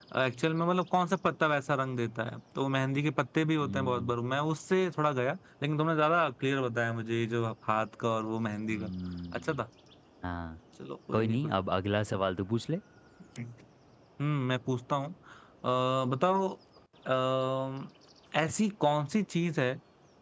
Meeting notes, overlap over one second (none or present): none